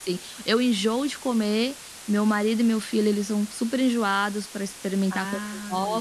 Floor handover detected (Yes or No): No